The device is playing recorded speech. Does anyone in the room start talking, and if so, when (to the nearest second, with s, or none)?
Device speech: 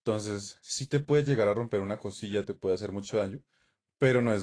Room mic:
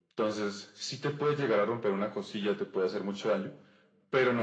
none